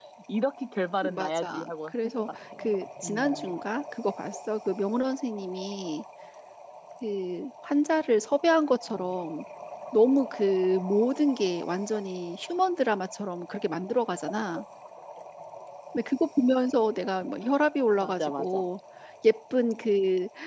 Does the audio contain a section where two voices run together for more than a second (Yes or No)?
Yes